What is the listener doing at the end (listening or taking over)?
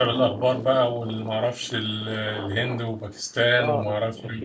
taking over